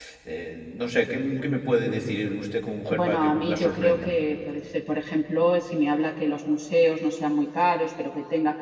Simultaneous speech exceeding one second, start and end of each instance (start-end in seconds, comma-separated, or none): 2.9-4.2